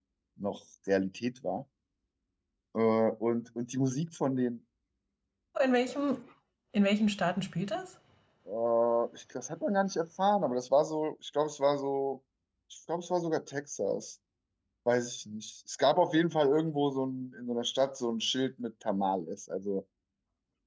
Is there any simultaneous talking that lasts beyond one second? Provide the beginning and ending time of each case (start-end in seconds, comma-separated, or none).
none